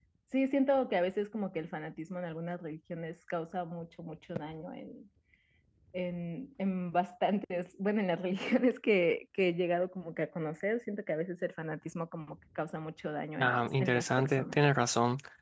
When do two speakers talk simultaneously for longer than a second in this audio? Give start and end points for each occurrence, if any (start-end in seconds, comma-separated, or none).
13.4-14.6